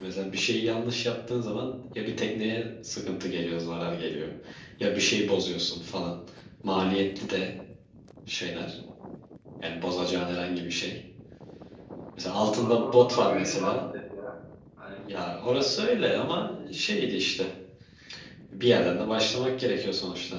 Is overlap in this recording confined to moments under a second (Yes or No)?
No